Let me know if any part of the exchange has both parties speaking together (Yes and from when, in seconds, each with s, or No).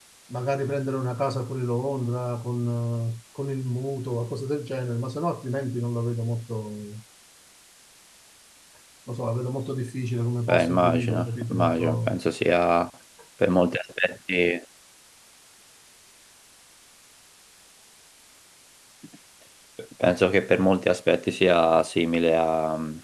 Yes, from 10.5 s